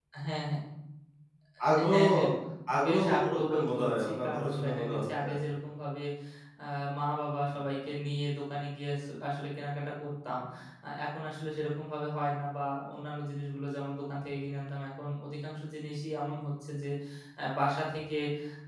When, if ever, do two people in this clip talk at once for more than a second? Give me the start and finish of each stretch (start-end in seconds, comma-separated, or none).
2.9-5.3